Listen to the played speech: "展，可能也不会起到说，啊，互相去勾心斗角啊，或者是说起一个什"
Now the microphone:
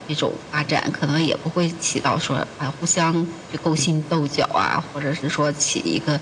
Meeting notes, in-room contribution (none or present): none